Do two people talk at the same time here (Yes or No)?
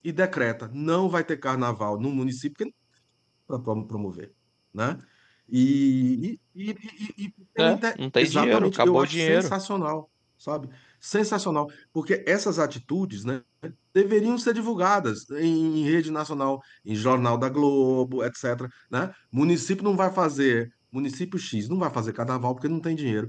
Yes